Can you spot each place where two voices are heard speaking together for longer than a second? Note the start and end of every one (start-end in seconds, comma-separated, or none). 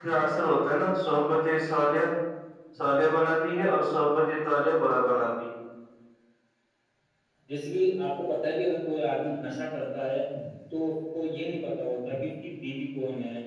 none